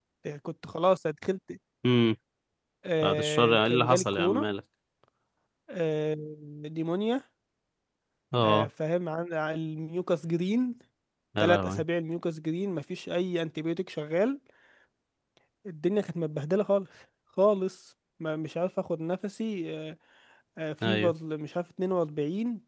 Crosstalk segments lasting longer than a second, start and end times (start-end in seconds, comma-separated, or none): 3.0-4.4